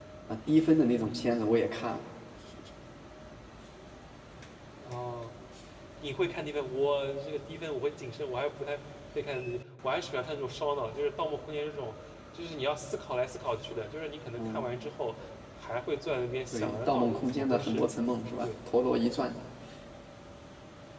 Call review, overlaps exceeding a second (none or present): present